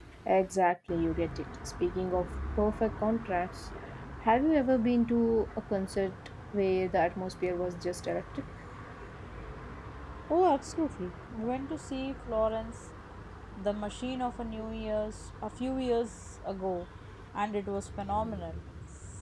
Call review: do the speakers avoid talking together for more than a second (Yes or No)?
Yes